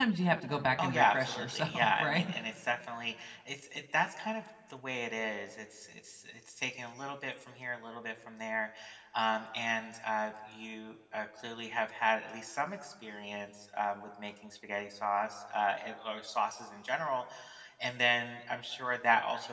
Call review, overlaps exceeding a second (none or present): present